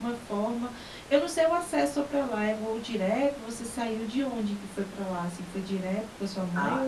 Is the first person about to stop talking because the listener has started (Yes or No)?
Yes